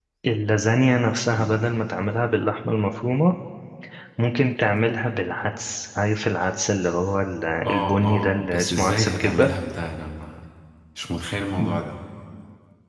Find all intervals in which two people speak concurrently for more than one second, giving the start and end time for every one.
7.7-9.5

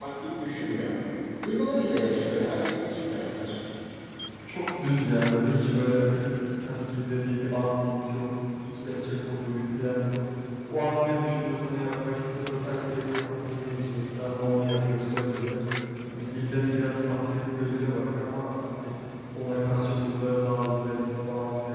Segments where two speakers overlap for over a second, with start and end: none

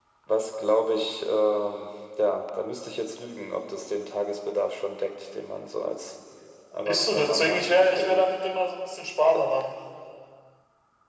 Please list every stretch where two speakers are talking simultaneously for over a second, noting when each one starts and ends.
6.8-8.2

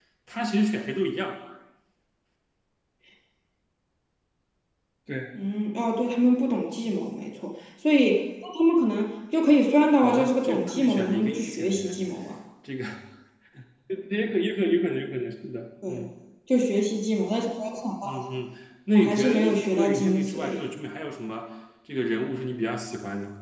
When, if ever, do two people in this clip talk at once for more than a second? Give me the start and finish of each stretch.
10.0-12.0, 19.0-20.6

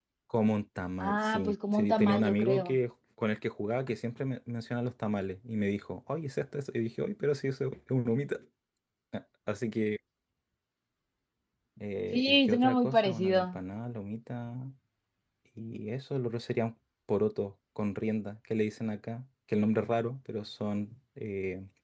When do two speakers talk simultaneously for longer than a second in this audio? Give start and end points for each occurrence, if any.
1.0-2.8, 12.1-13.6

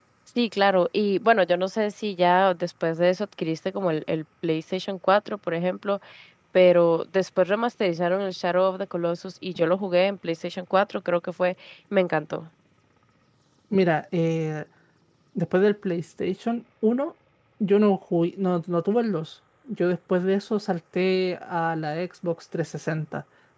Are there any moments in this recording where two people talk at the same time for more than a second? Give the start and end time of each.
none

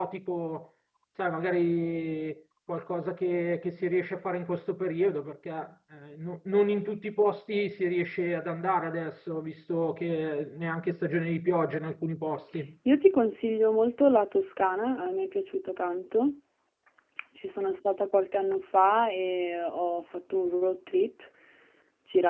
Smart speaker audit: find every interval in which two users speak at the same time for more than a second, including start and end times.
none

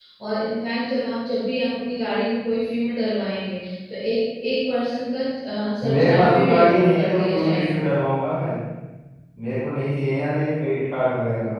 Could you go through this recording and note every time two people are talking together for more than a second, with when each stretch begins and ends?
5.8-7.8

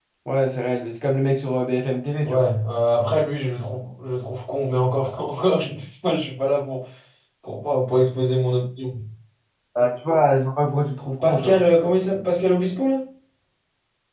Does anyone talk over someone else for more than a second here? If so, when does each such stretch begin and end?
none

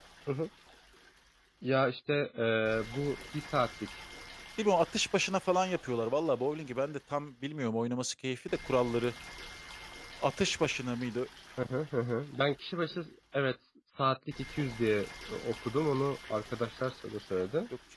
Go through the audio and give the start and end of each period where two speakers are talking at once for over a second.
none

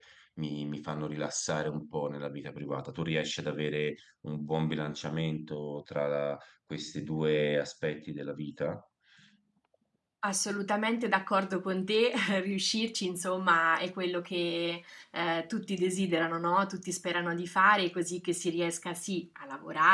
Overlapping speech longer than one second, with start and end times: none

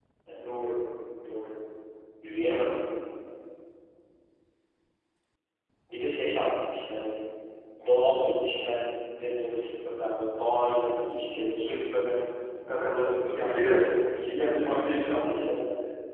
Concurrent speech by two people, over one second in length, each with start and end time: 13.0-15.3

